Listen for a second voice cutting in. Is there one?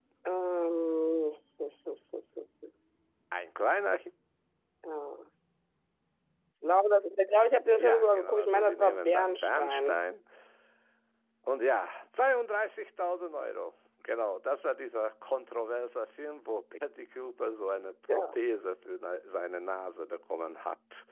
Yes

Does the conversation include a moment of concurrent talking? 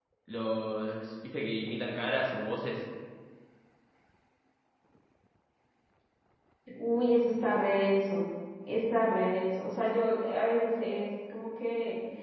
No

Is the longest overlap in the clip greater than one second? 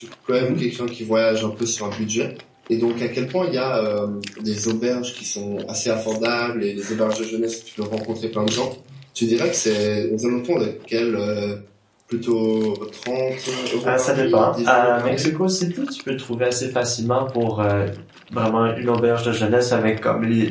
Yes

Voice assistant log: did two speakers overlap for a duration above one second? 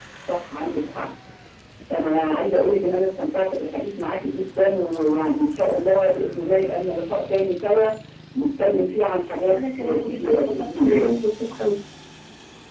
Yes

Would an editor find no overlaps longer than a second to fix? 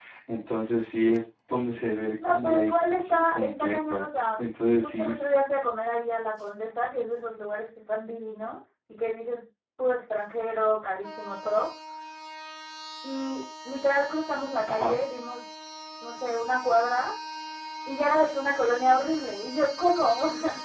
No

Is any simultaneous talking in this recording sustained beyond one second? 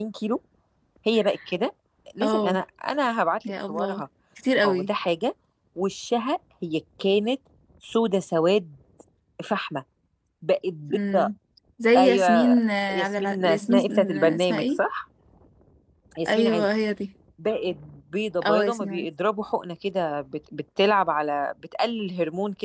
Yes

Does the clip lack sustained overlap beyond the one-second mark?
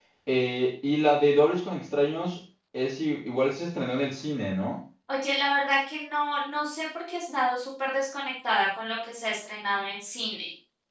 Yes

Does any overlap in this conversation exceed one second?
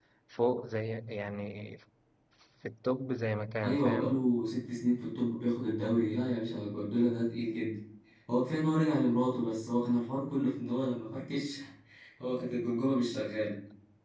No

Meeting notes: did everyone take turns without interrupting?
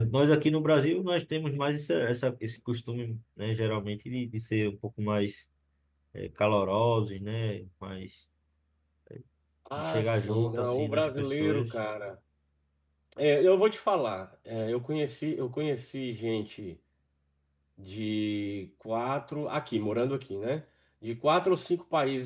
No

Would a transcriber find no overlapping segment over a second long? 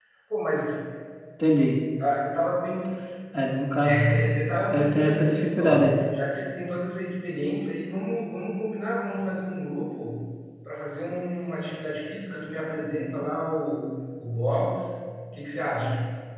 No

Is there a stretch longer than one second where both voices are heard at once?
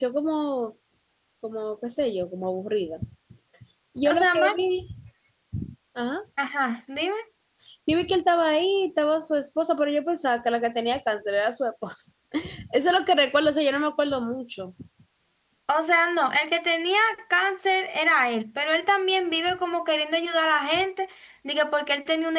No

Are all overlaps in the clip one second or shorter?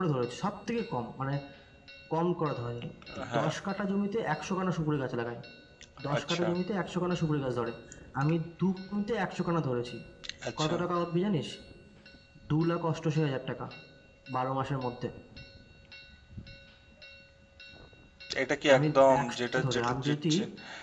No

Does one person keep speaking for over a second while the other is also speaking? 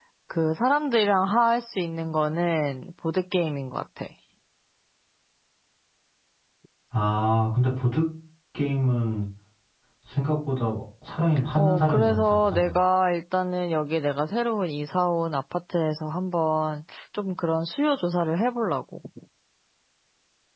Yes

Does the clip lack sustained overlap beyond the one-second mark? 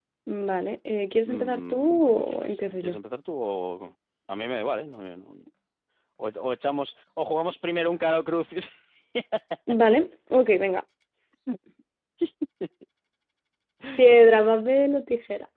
No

